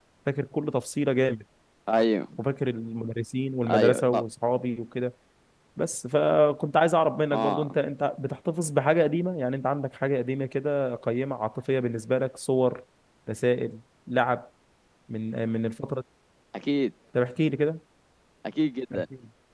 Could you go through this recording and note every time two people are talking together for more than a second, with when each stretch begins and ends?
none

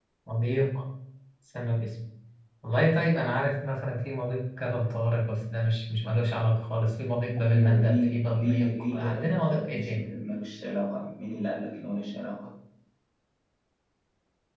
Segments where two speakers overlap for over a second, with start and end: 7.5-10.0

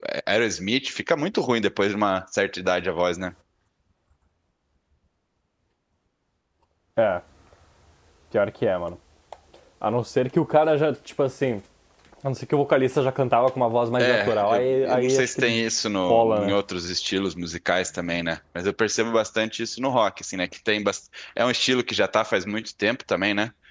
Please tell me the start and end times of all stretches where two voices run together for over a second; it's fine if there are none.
14.0-15.4

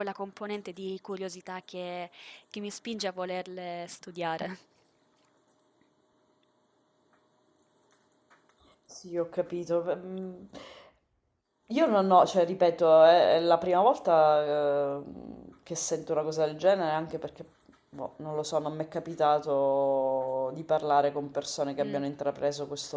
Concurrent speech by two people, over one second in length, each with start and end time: none

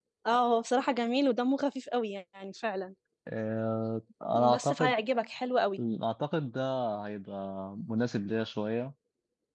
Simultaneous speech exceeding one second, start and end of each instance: none

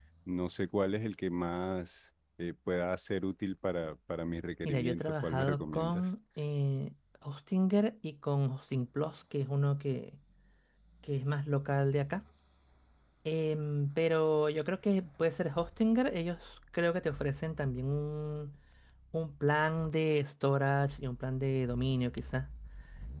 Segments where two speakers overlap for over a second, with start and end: 4.6-6.1

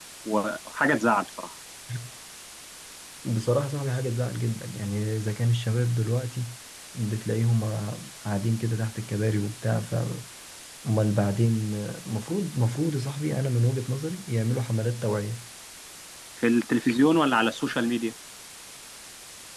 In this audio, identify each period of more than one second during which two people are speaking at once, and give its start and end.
none

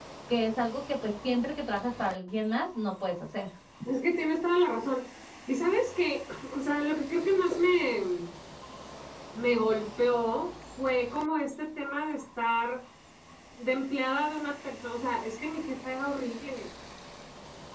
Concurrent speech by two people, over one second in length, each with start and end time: none

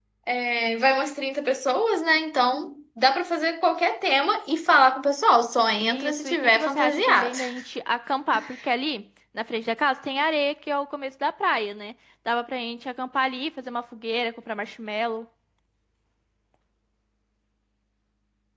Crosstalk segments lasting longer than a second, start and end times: 5.8-7.4

